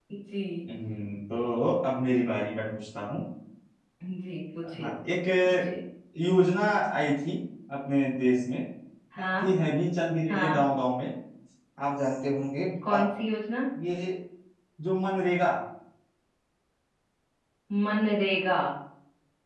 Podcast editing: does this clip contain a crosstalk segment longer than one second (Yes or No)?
No